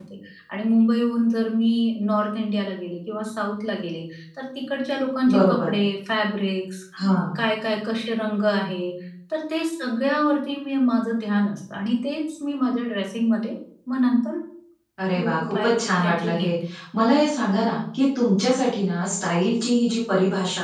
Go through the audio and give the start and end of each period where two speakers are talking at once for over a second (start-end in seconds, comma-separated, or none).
15.2-16.5